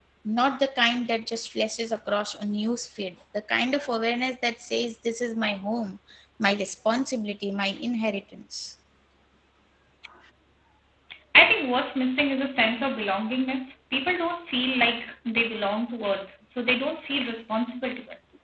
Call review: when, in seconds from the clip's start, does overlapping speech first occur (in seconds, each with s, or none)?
none